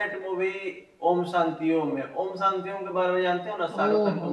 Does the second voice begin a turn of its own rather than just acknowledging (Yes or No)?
Yes